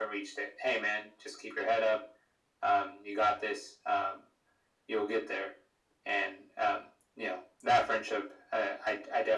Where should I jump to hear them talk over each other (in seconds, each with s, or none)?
none